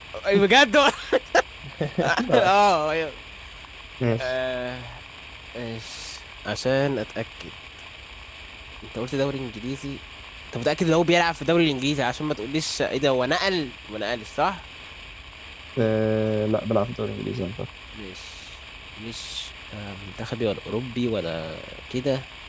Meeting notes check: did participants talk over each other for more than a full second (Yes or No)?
No